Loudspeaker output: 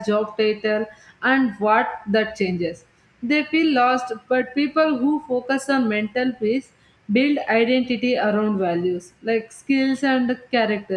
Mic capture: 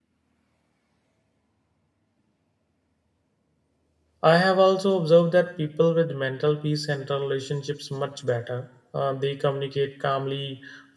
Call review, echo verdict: none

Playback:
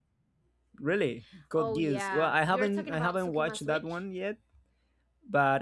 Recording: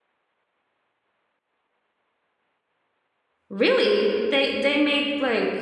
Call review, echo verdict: none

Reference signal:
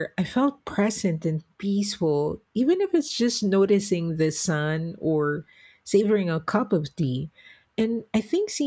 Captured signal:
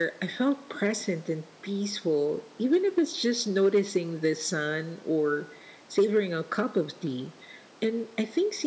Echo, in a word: present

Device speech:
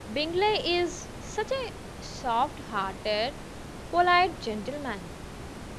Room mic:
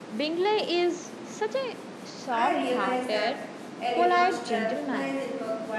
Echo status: present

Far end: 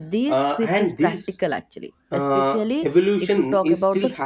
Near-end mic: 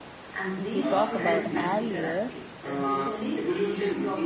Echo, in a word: present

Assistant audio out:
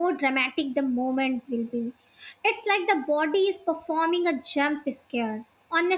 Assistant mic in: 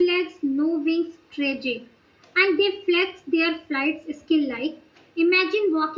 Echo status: none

